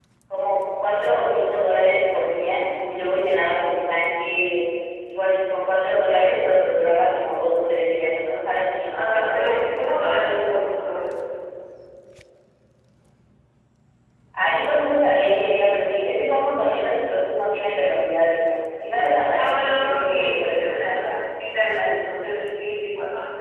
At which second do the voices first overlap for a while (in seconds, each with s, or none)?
8.9 s